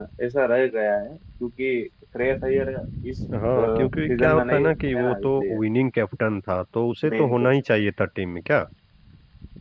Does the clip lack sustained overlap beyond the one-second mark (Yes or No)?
No